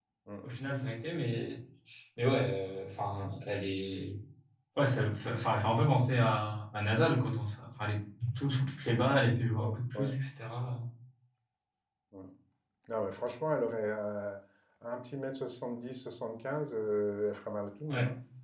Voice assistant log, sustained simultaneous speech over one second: none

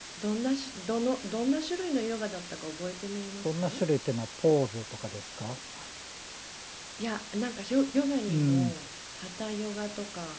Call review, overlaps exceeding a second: none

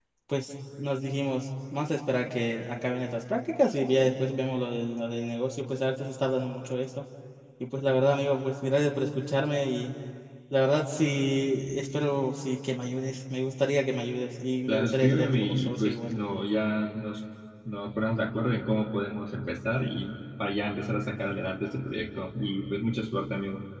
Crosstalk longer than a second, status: present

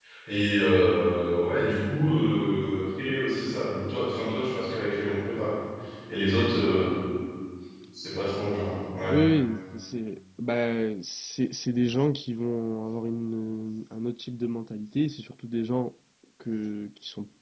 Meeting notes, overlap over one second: none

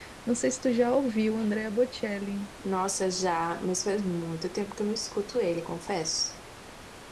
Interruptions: none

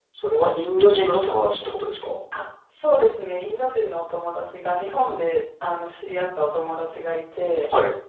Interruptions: none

